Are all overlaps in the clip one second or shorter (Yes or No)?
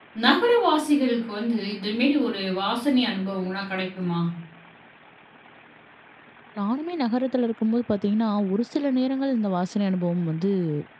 Yes